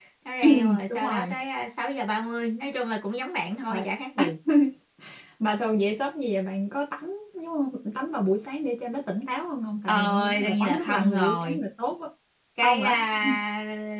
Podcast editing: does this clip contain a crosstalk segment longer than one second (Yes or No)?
Yes